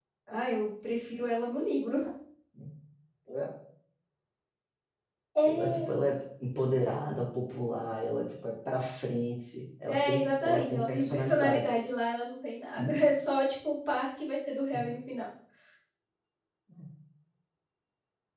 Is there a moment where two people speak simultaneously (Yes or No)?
Yes